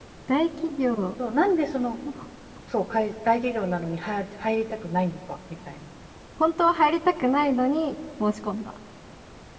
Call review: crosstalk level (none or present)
none